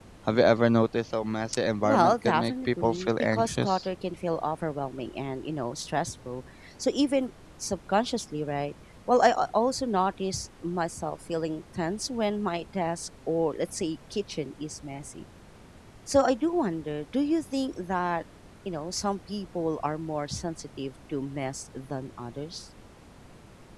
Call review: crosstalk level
present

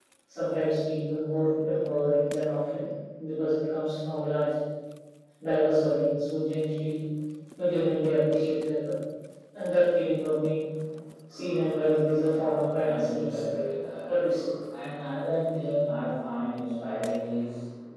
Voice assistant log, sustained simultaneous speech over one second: present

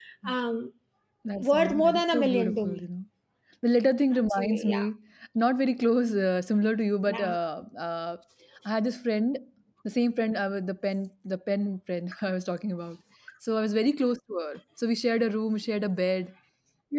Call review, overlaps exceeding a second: present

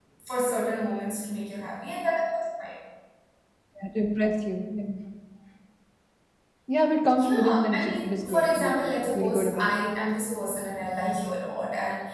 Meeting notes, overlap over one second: present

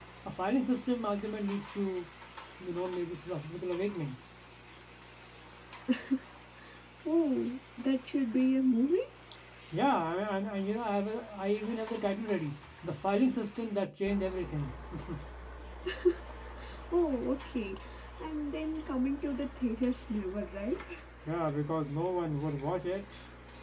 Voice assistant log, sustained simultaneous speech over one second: none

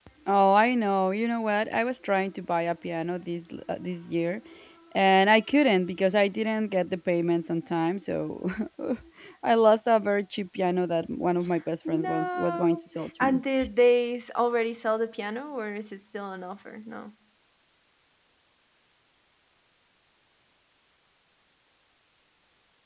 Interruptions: present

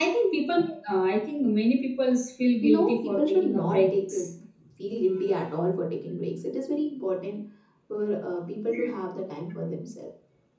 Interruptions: present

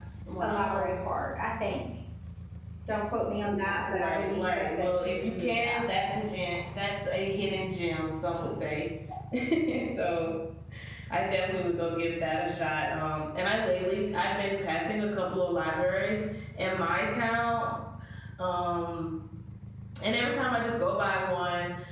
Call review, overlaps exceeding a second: present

